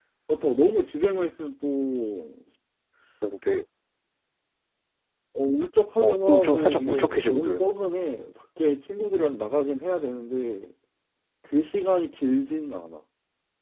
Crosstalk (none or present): present